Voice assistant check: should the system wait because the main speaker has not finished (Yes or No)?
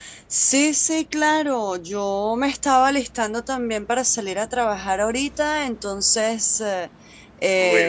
Yes